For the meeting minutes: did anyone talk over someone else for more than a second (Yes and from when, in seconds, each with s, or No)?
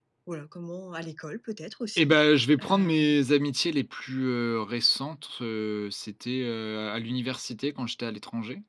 No